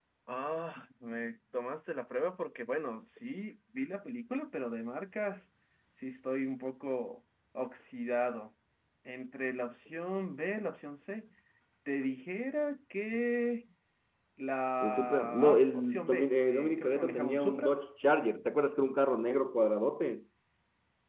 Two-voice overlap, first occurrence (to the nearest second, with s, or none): 15 s